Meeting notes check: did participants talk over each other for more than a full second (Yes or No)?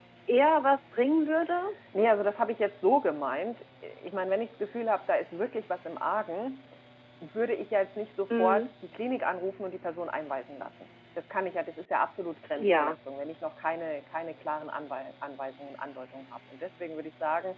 No